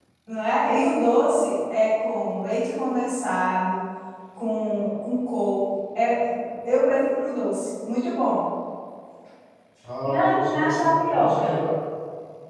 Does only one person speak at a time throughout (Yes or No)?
No